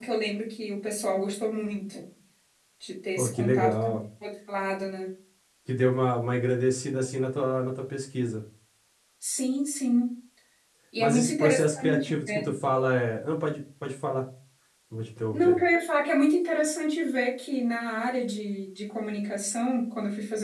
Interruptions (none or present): present